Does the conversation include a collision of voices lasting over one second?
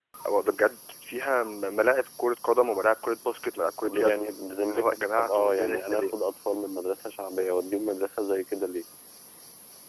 Yes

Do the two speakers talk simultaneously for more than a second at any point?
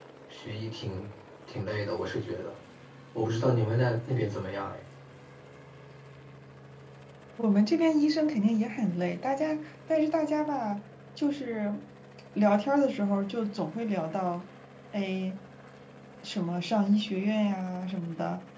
No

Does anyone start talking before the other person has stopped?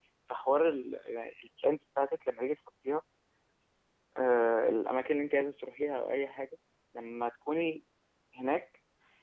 No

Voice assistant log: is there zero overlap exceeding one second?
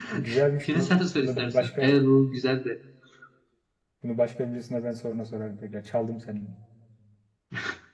No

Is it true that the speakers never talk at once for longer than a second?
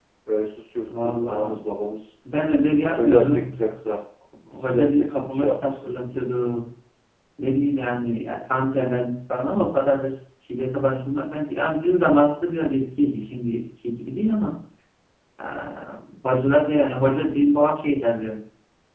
No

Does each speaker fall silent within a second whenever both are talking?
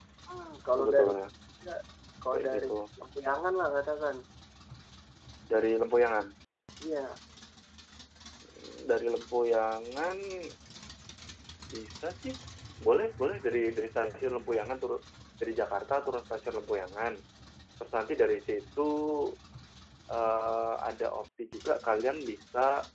Yes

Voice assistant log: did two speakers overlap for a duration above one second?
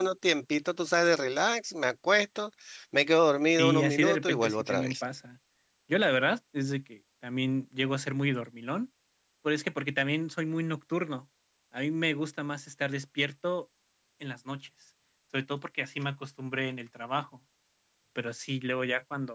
Yes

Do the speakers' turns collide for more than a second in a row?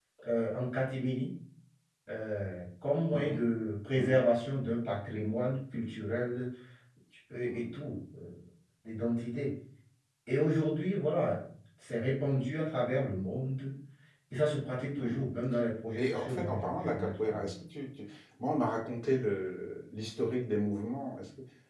Yes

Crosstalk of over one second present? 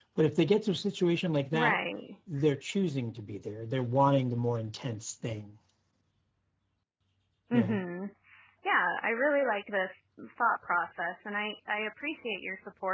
No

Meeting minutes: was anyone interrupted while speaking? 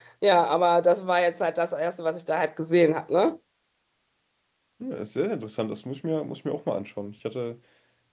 No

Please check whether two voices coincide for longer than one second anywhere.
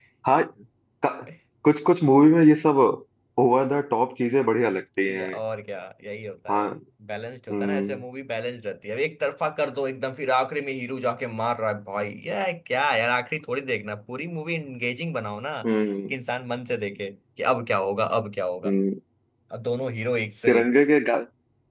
No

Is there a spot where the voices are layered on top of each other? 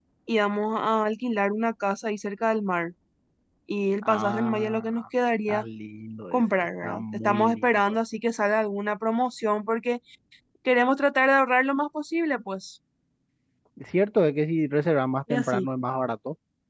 Yes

